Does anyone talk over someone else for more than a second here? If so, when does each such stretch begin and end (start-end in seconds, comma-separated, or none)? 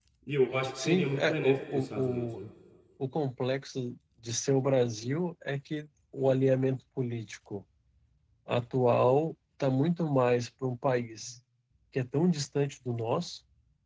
0.8-2.4